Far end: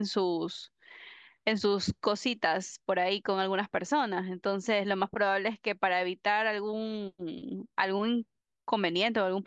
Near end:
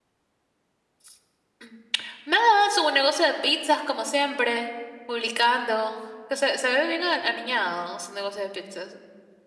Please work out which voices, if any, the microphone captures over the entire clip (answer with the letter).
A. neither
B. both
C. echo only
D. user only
D